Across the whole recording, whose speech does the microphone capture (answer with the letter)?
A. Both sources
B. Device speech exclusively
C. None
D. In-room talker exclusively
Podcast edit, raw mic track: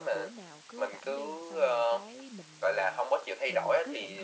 A